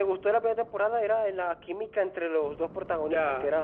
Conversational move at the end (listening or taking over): taking over